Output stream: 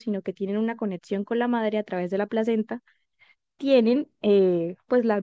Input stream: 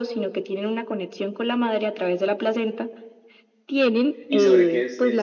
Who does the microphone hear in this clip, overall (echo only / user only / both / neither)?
both